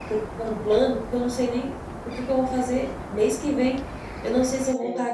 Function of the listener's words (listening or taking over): listening